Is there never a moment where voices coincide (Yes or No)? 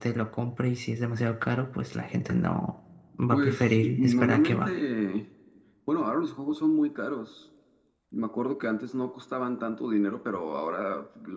No